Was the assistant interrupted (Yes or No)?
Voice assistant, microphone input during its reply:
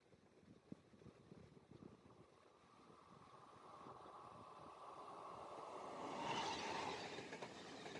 No